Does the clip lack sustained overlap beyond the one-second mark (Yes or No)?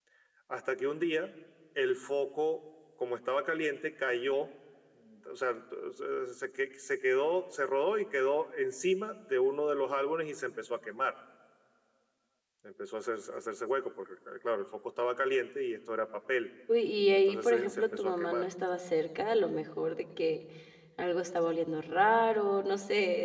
No